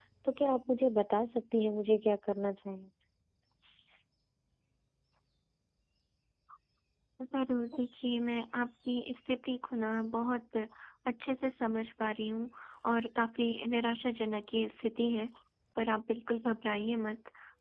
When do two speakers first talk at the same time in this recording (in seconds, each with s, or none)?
none